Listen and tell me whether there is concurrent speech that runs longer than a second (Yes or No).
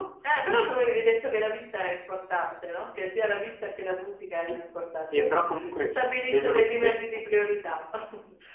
Yes